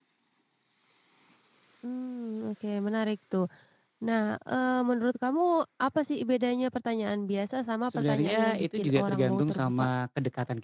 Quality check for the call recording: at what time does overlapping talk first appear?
7.9 s

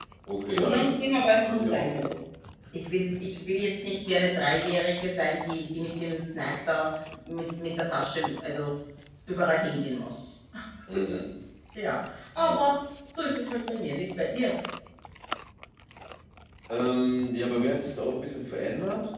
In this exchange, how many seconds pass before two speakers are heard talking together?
0.5 s

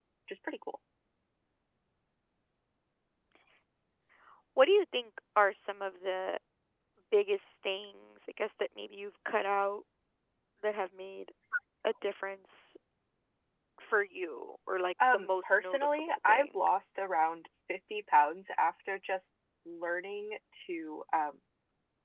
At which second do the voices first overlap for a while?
15.0 s

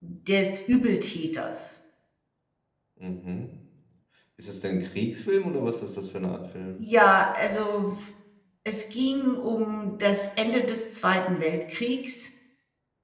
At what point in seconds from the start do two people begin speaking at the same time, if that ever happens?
none

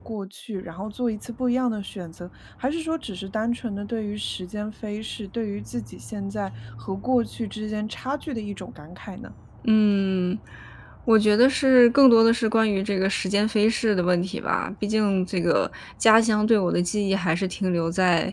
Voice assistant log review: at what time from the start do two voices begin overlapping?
none

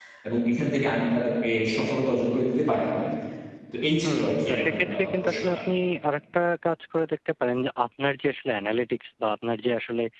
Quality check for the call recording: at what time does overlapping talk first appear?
4.0 s

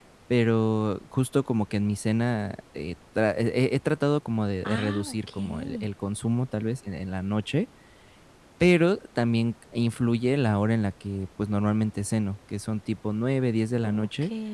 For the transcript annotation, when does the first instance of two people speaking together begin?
4.7 s

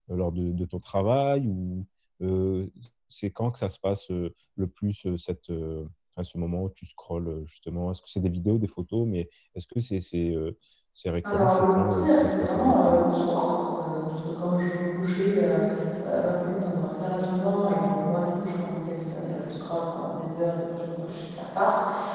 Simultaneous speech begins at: 11.2 s

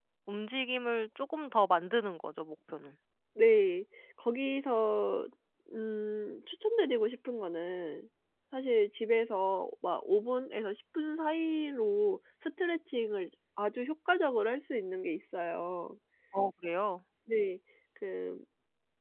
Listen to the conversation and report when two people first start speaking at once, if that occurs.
none

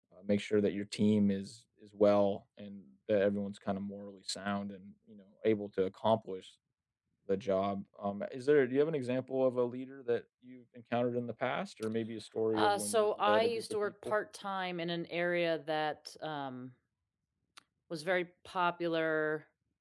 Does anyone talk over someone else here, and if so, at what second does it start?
12.5 s

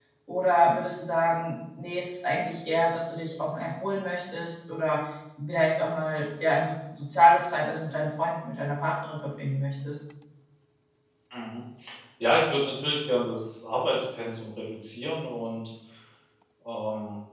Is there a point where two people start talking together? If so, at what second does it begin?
none

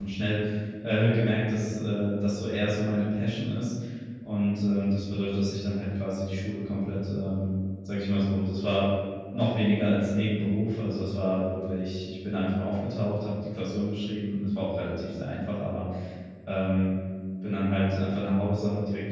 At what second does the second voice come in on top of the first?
none

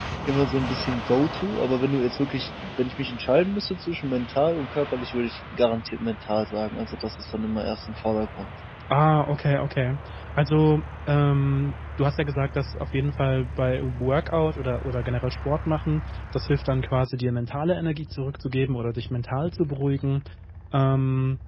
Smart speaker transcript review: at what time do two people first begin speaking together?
none

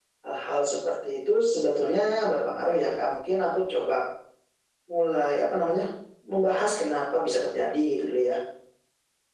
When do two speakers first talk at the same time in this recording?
none

